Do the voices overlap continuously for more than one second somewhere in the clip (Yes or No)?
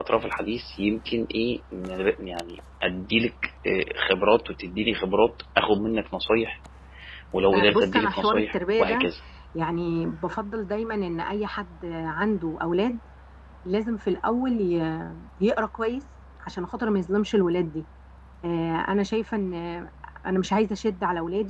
Yes